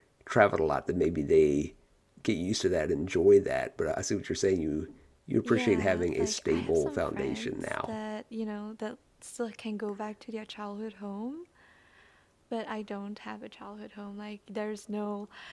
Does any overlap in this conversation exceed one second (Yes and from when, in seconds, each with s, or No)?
Yes, from 5.5 s